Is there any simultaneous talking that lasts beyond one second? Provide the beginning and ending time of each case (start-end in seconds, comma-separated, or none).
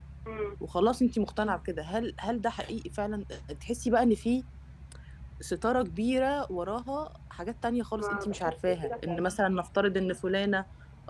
8.0-9.2